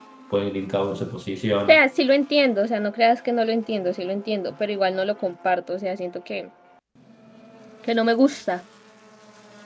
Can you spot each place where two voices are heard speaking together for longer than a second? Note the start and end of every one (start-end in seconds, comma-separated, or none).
none